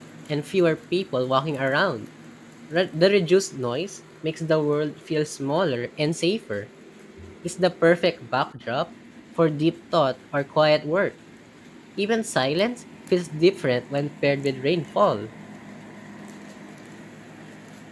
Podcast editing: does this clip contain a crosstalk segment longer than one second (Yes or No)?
No